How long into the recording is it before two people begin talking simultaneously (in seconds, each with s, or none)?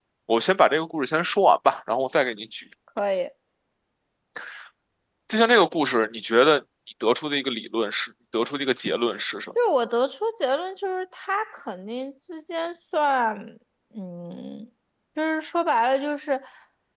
none